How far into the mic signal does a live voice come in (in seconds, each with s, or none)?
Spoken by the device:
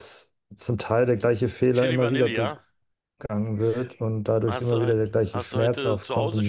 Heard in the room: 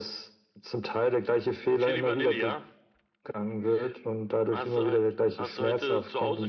none